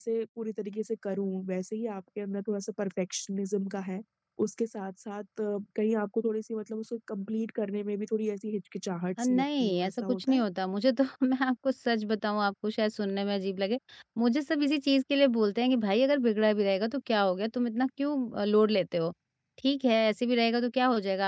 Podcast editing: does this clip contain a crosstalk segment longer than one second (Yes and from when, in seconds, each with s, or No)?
Yes, from 9.2 s